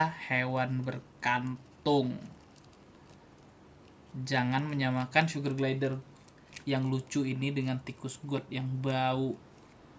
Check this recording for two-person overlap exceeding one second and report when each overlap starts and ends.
none

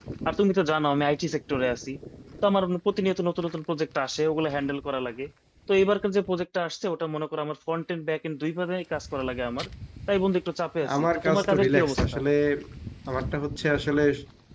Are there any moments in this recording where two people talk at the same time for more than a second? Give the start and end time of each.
10.9-12.2

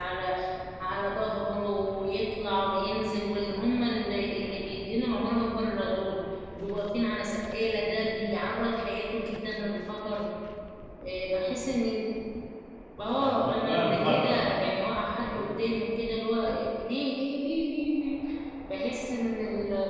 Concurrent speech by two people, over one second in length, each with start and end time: 13.1-14.4

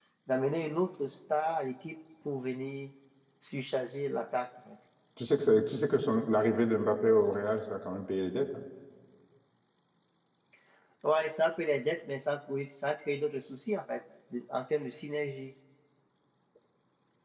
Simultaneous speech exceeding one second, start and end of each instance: none

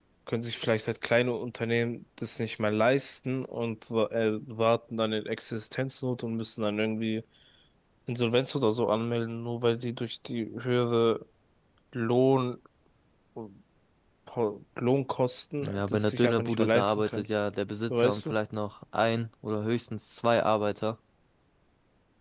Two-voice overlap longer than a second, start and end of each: 15.6-17.2

